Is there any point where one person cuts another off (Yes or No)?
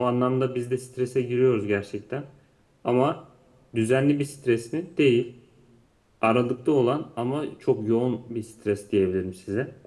No